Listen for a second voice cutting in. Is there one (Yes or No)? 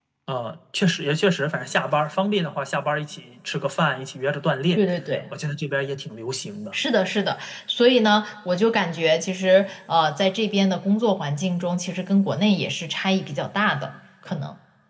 No